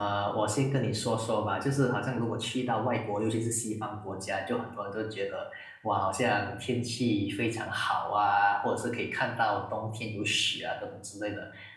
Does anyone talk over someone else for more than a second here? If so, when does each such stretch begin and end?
none

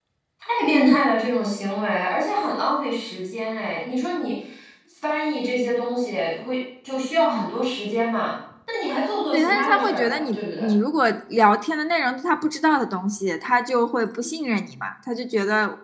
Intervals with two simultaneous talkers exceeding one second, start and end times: 9.3-10.6

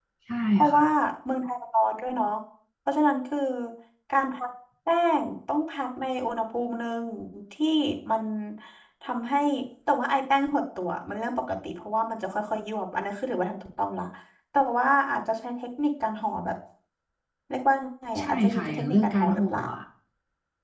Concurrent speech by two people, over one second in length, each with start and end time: 18.2-19.6

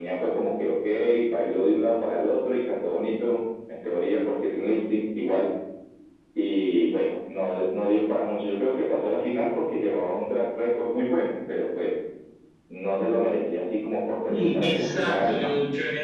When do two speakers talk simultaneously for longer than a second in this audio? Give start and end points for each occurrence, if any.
14.3-15.5

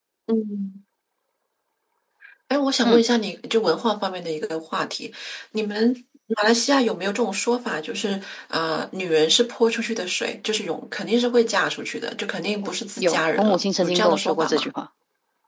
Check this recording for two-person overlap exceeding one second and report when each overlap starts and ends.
13.0-14.7

